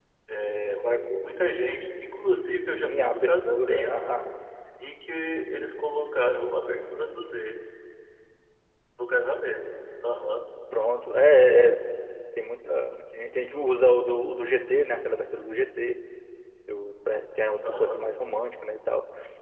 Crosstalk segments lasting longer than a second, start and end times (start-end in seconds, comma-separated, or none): 2.7-4.1